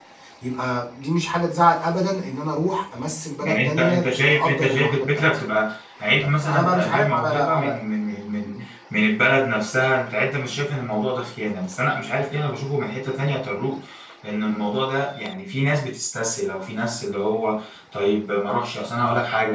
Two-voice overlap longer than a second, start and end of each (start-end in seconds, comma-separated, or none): 3.4-5.3, 6.2-7.8